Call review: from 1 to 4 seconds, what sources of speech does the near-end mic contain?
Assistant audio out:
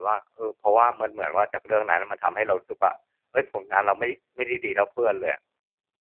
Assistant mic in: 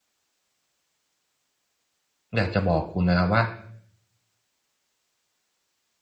user only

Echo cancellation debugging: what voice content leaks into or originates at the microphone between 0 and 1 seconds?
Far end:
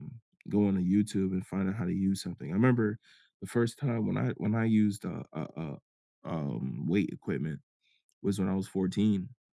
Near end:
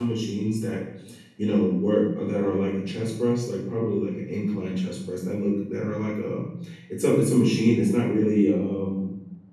user only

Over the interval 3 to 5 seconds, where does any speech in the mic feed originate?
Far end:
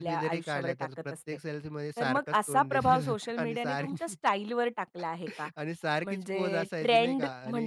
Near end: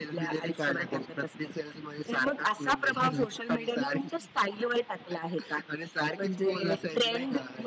echo only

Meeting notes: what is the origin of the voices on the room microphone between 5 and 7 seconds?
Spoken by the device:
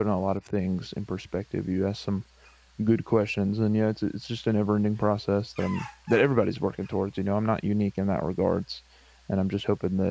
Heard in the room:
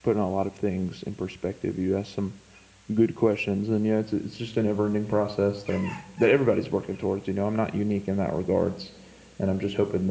echo only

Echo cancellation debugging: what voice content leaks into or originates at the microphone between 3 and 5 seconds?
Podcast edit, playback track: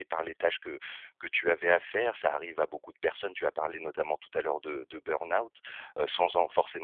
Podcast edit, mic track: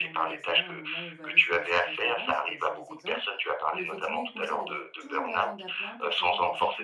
both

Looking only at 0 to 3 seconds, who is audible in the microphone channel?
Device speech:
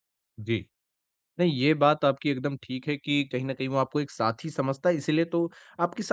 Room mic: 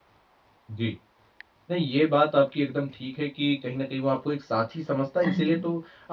echo only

